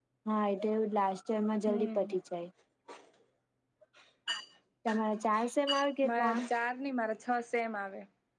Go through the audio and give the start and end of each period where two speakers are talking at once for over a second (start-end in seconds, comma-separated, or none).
none